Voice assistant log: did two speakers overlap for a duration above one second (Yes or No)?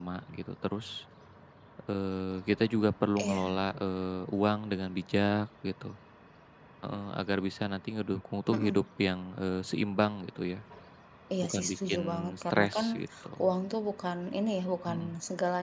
Yes